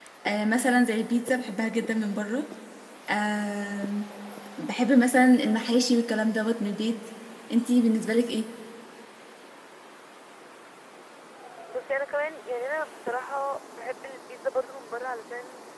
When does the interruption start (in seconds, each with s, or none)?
none